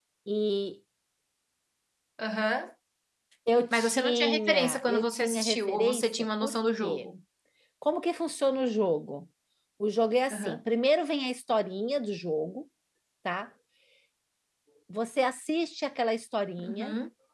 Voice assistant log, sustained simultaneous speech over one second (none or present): present